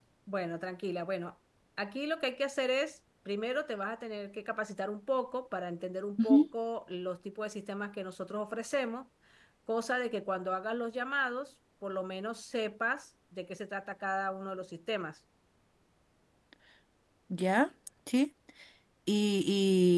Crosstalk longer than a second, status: none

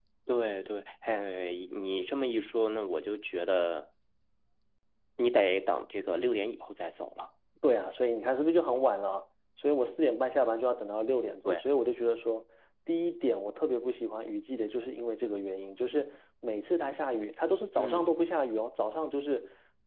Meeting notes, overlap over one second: none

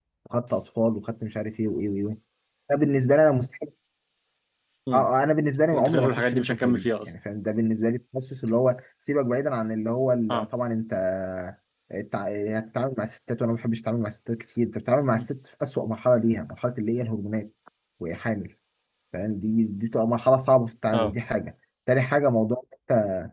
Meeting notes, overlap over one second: present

